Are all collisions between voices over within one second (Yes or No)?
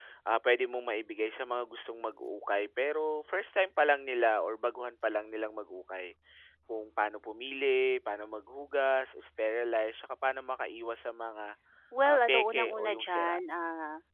No